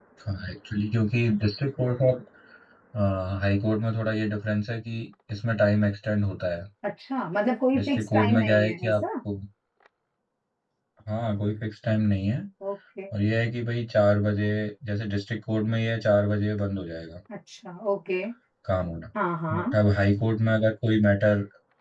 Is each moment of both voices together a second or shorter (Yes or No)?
No